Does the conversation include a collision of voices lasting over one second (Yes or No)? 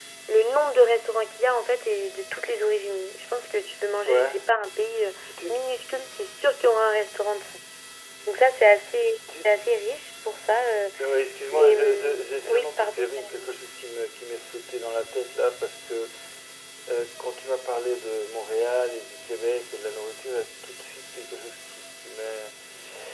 Yes